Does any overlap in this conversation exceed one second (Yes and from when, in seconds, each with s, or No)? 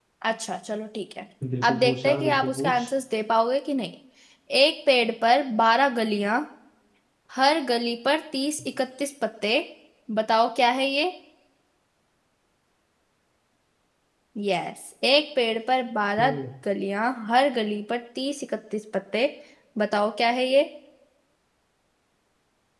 Yes, from 1.6 s